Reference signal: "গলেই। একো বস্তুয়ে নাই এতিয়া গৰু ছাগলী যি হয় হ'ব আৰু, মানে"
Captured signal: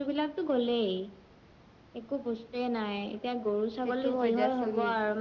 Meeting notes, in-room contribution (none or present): present